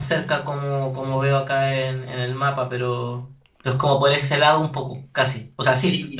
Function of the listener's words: taking over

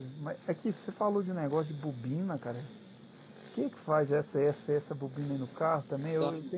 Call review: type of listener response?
listening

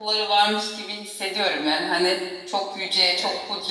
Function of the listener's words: listening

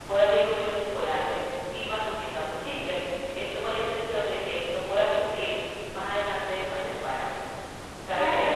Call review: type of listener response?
taking over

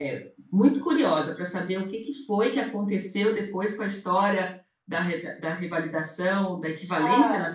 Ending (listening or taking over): listening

